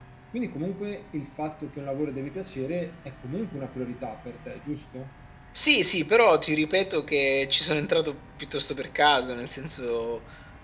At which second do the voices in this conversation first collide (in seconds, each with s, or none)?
none